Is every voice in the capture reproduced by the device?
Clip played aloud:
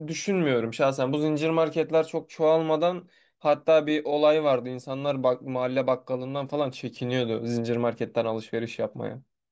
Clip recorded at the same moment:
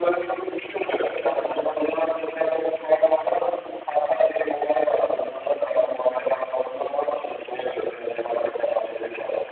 Yes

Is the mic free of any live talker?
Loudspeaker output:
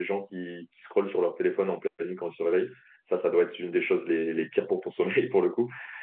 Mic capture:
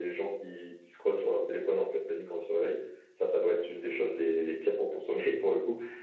Yes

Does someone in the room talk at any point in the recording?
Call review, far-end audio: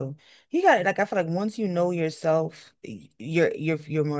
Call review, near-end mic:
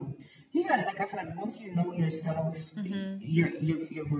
Yes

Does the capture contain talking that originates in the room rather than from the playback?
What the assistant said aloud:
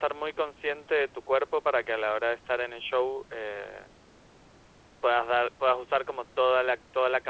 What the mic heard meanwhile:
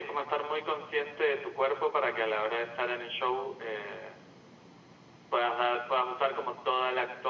No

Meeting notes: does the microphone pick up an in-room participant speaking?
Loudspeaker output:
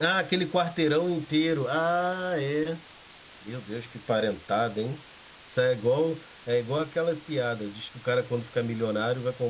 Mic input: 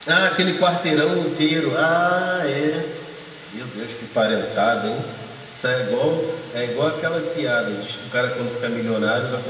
No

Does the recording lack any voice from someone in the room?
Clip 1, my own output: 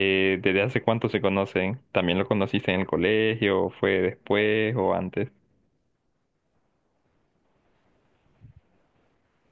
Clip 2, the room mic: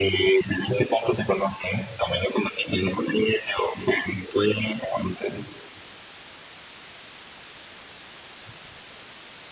Yes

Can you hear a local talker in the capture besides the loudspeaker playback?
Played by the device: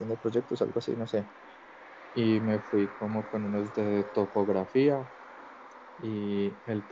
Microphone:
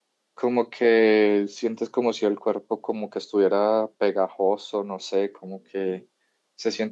Yes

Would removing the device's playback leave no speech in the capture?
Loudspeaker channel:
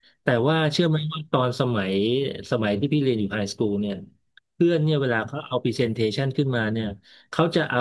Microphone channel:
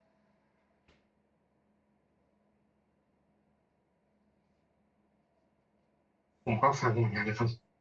No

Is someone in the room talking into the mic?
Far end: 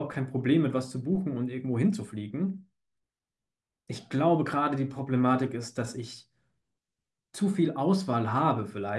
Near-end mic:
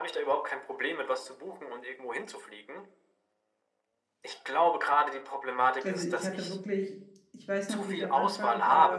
Yes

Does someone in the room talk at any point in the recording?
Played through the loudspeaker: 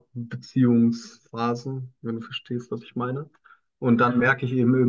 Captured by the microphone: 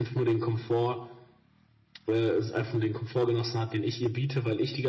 Yes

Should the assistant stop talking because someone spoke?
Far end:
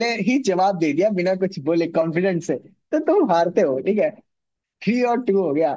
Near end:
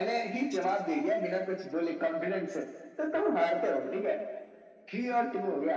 No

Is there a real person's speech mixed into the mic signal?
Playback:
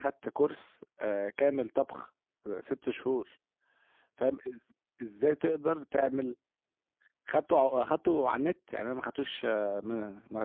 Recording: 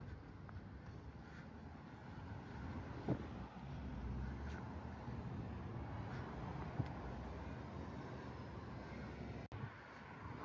No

